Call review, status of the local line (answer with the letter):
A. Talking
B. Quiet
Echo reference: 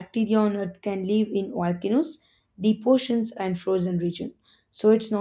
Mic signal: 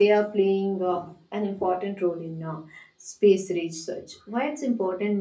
A